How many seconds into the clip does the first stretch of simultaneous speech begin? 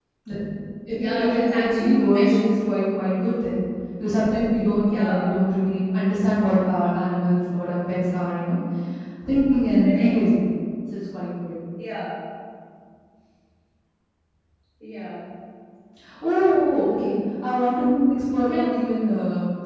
1 s

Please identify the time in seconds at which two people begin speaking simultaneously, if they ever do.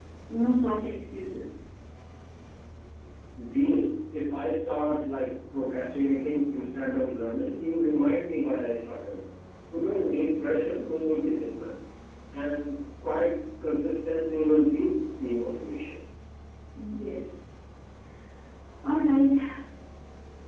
none

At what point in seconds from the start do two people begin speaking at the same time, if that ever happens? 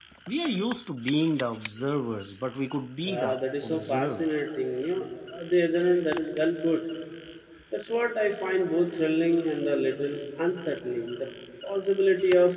3 s

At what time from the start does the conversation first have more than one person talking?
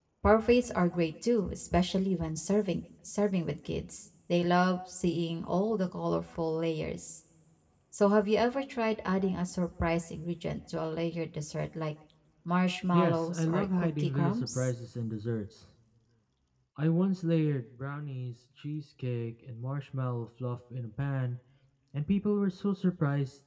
13 s

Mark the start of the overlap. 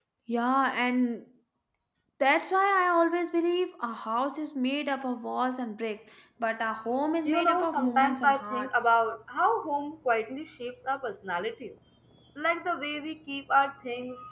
7 s

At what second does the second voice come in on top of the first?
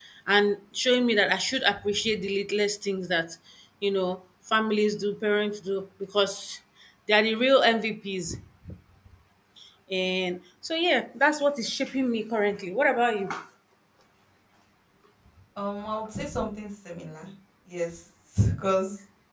none

